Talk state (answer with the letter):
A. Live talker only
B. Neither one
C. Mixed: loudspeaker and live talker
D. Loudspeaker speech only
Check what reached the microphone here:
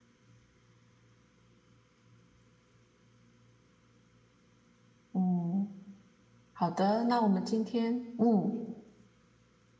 A